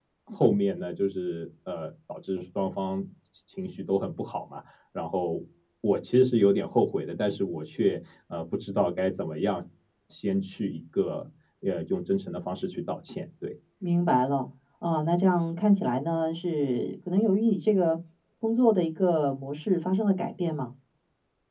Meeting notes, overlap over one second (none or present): none